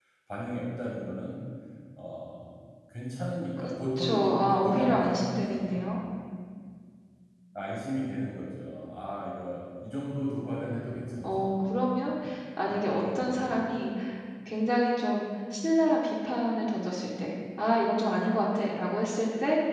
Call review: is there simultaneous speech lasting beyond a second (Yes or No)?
Yes